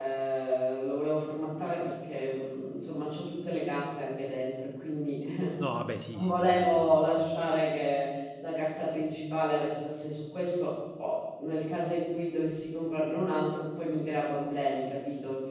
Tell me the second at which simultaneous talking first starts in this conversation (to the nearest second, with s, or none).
6 s